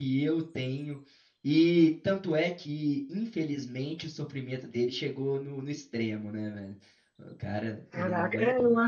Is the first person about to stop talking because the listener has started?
Yes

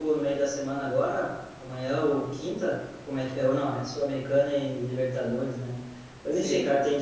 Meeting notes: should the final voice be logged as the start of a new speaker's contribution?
No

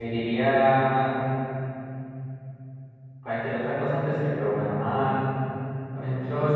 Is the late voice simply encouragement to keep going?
Yes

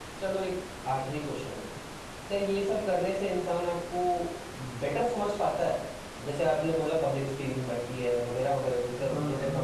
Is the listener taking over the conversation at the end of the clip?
No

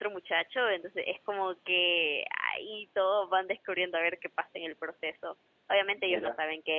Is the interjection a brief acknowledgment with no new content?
Yes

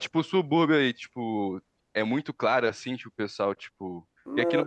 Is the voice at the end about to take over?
No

